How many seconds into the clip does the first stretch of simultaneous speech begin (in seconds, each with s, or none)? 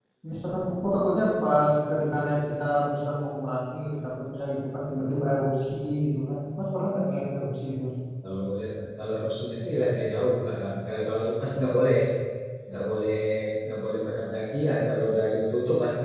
none